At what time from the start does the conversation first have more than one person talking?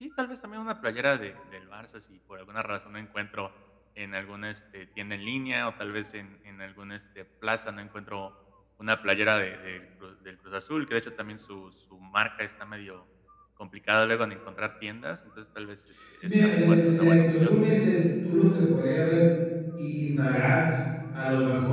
16.2 s

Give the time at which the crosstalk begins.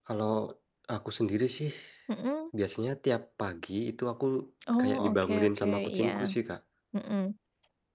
4.8 s

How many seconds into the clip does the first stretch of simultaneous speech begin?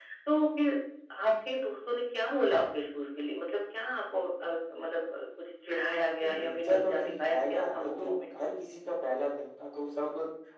6.2 s

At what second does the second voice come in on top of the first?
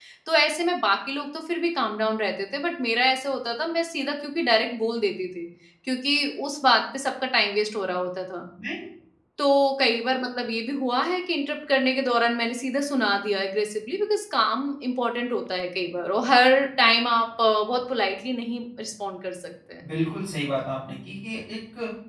none

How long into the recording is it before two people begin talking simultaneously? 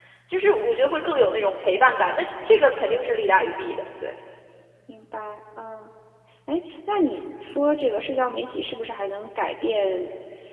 none

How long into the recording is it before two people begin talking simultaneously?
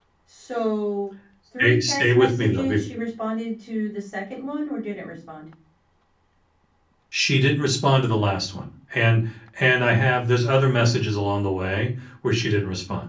1.6 s

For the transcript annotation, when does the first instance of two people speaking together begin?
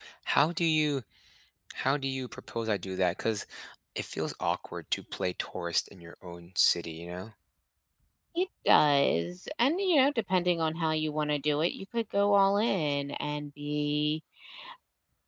none

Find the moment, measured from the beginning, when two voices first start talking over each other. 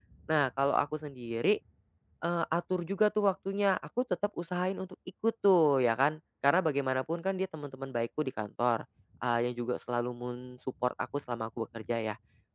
none

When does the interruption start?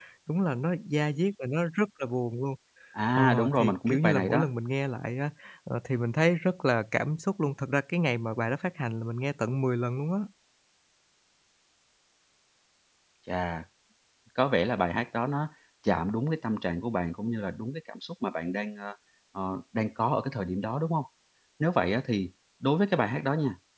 3.1 s

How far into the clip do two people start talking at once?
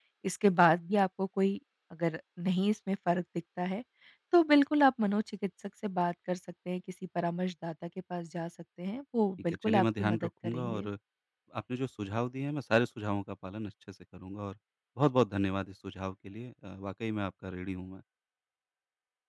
9.5 s

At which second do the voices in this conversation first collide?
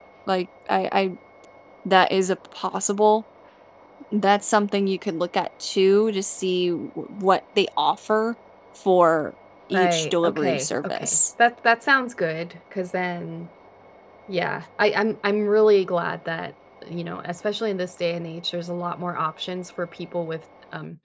9.7 s

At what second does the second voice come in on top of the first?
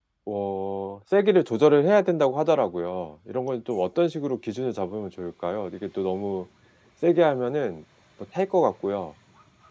none

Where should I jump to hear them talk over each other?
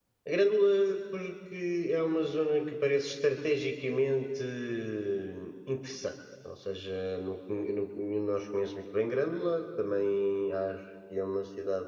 none

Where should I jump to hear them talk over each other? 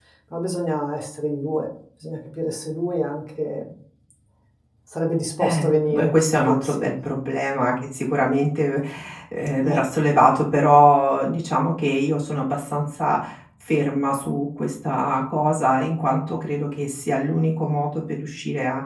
5.4 s

